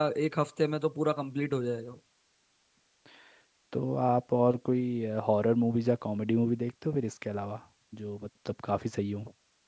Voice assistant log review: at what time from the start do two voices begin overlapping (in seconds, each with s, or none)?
none